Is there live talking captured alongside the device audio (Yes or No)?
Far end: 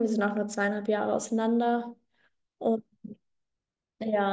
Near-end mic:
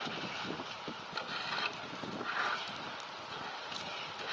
No